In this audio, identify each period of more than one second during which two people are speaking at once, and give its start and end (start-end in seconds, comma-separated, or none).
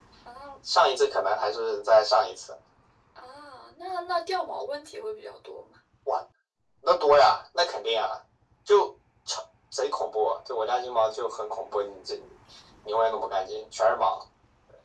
none